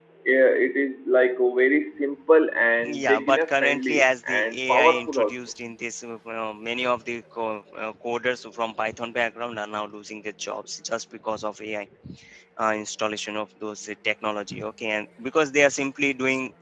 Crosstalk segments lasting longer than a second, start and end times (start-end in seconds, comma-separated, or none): 2.8-5.3